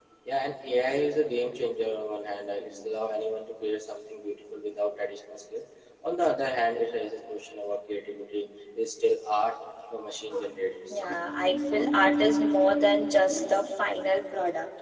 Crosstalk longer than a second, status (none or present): none